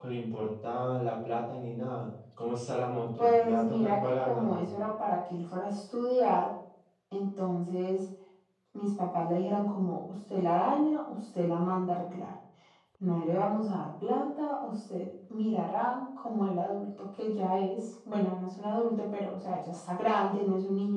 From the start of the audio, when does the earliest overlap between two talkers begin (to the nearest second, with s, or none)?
3 s